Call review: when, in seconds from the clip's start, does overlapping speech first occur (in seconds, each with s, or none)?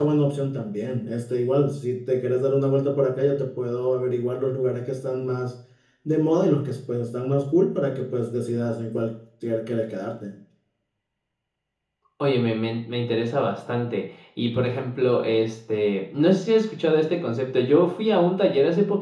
none